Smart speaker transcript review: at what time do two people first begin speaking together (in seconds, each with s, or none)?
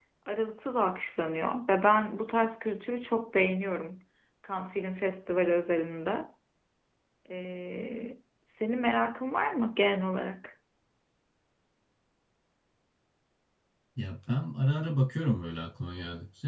none